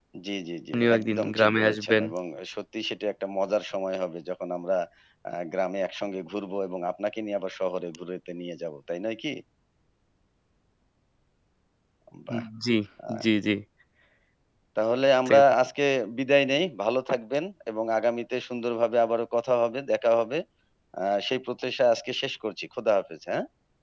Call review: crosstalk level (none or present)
present